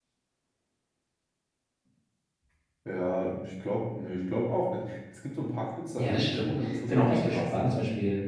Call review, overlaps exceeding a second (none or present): present